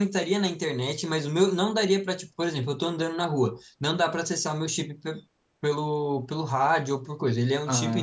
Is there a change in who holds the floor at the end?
No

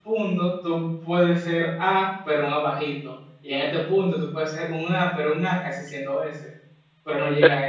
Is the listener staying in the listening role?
Yes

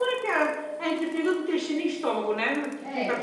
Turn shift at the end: Yes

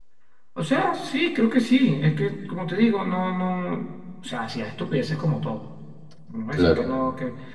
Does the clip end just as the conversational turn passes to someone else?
No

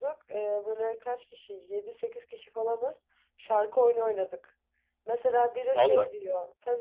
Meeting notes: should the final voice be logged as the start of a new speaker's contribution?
No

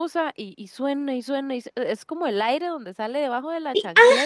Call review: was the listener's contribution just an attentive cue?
No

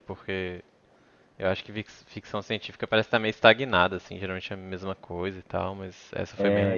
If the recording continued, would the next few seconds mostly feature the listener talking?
Yes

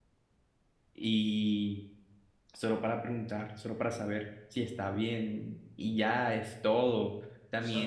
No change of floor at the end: Yes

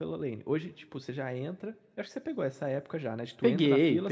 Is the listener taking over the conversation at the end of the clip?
No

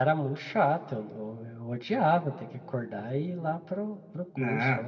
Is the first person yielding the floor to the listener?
Yes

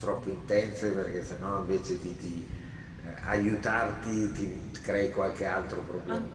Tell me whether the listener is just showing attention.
No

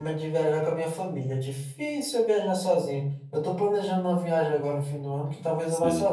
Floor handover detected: No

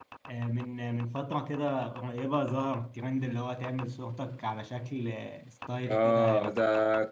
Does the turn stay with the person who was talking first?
No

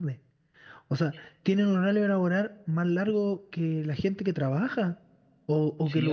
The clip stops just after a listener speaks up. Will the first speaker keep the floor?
No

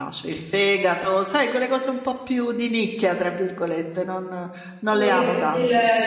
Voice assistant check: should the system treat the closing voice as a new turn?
Yes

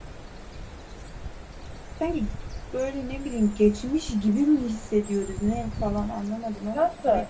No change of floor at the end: No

